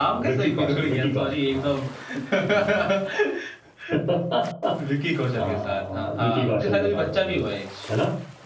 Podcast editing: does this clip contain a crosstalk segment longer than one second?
Yes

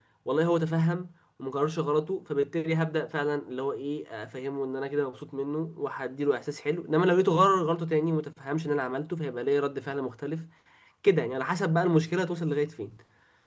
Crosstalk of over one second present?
No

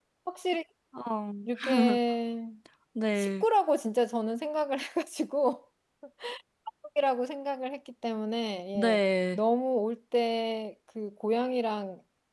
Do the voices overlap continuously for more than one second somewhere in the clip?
No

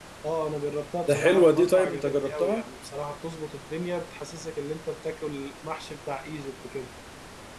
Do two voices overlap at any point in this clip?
Yes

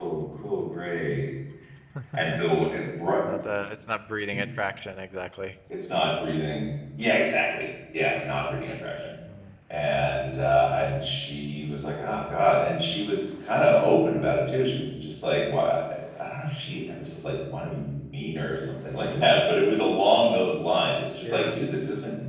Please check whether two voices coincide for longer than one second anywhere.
No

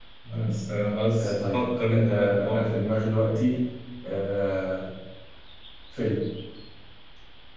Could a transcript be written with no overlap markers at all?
No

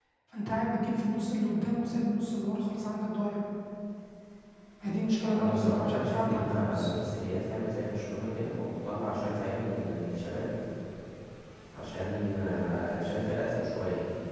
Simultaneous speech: Yes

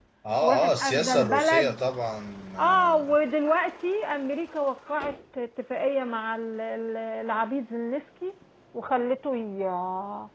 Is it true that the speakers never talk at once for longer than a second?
No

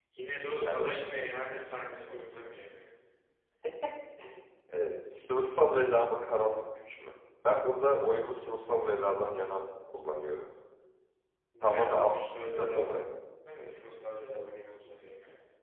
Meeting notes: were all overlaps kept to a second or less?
No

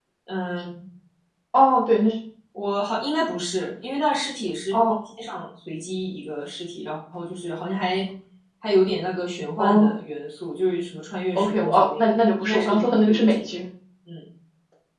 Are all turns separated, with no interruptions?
No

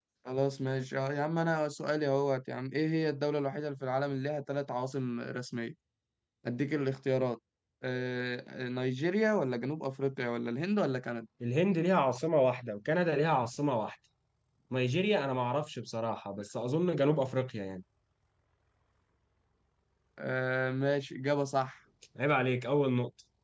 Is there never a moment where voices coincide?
Yes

